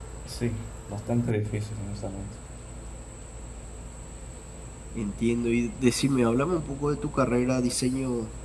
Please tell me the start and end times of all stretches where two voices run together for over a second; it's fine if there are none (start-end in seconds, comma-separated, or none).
none